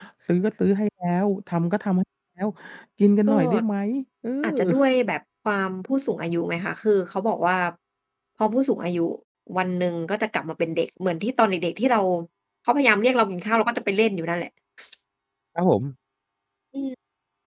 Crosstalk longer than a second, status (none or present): none